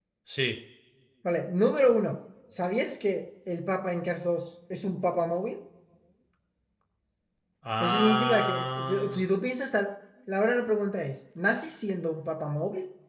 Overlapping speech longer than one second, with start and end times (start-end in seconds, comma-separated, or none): 7.8-9.2